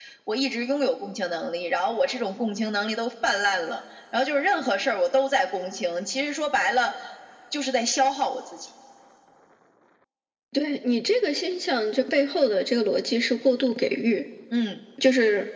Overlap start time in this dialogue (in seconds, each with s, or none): none